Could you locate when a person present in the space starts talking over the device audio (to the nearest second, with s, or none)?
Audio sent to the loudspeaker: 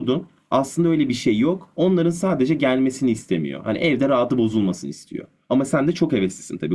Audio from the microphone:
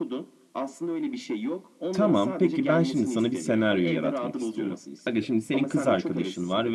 2 s